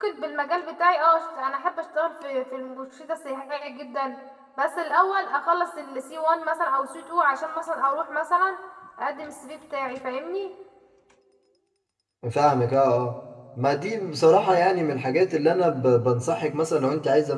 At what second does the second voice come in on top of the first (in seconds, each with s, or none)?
none